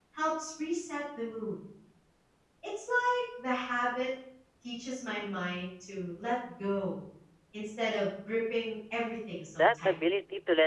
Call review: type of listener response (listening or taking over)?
taking over